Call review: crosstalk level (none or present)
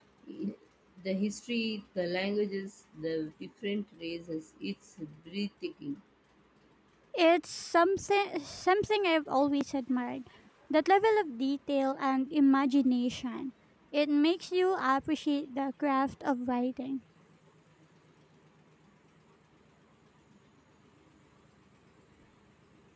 none